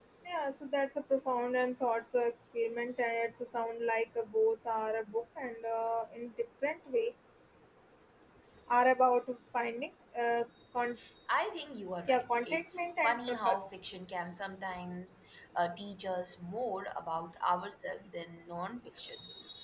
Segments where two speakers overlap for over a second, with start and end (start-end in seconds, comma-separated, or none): 12.1-13.6